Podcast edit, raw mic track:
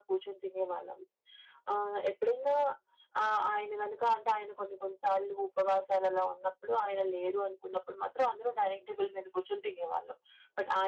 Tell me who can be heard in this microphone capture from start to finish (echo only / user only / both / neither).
echo only